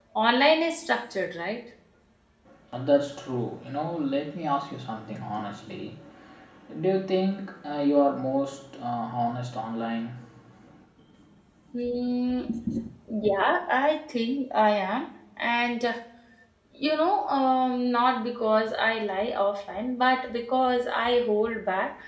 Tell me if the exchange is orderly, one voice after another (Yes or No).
Yes